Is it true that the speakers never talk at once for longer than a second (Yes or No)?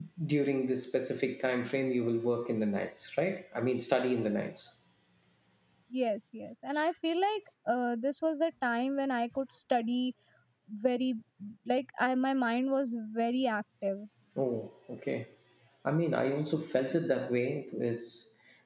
Yes